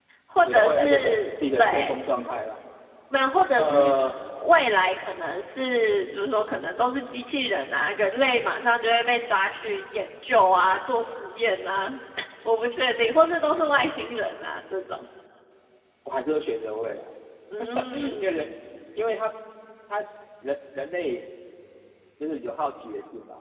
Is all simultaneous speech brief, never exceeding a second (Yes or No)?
No